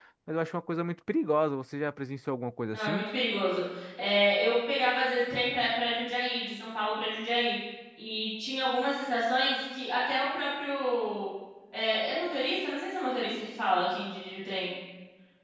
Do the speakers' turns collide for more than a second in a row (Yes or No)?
No